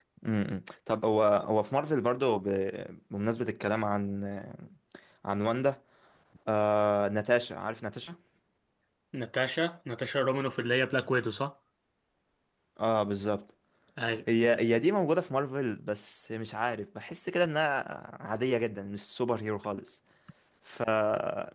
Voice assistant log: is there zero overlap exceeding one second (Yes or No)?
Yes